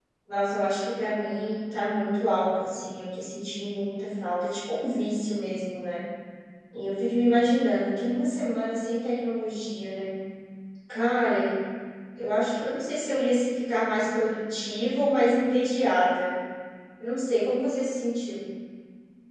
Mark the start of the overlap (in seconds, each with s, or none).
none